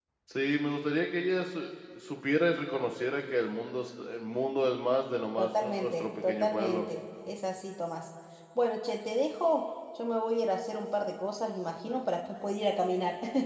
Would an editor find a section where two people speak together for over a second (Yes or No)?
Yes